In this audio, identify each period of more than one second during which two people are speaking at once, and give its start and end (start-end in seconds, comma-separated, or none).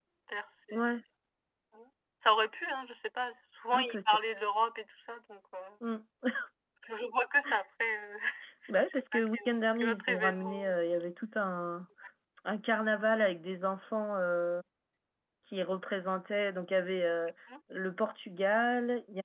8.9-10.7